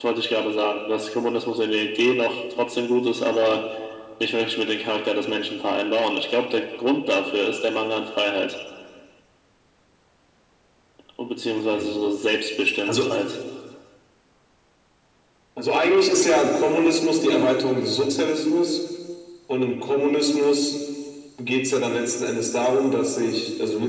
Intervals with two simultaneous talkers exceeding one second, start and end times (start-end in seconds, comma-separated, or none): none